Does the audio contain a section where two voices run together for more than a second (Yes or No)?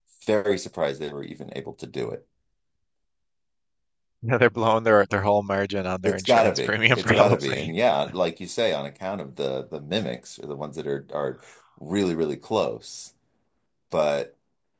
Yes